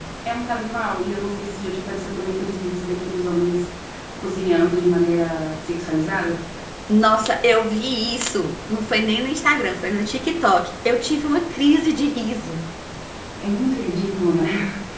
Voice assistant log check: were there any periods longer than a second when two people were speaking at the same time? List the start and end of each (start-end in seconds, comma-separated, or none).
none